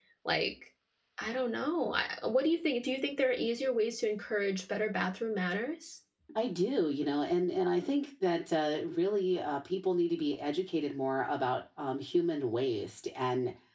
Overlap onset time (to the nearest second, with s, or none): none